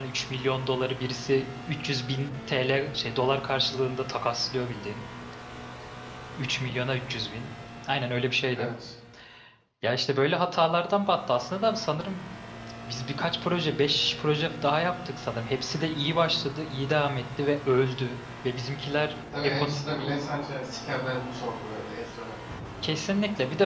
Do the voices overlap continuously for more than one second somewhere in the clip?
No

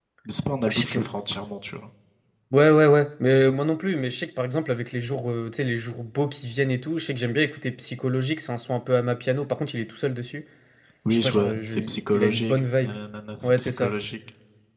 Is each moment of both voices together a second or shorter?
No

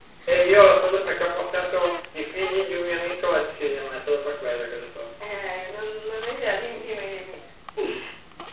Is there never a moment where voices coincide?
Yes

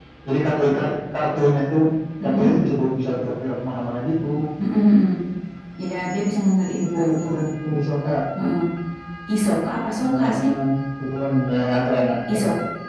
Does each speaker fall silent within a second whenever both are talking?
Yes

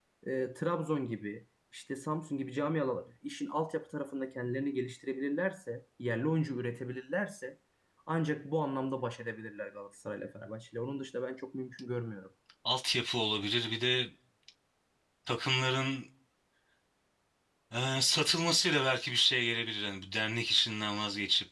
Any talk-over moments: No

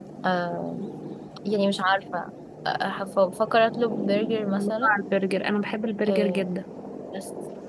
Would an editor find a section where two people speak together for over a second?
No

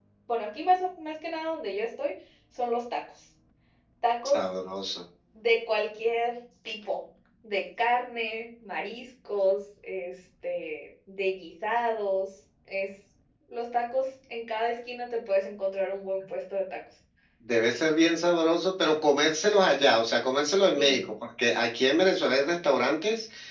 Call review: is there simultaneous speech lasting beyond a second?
No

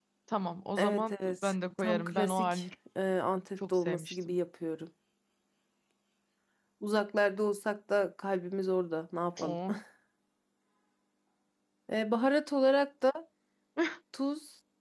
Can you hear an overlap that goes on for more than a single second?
Yes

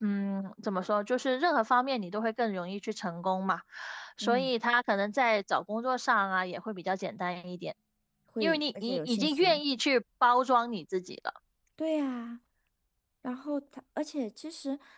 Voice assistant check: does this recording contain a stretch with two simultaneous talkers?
Yes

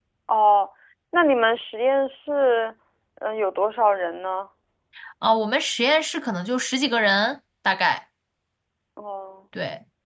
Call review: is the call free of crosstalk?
Yes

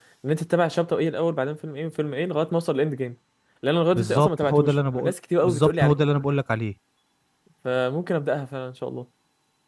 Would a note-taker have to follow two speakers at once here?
Yes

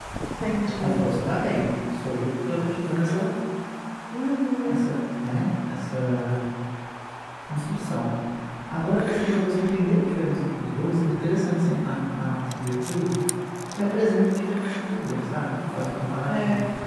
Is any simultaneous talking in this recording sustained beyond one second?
No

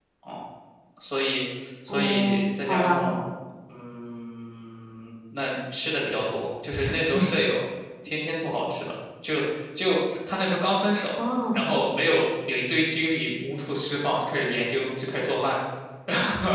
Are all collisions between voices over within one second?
No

